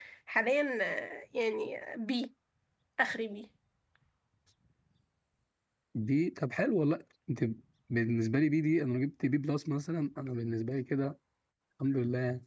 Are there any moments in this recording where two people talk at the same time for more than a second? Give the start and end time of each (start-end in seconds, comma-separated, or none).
none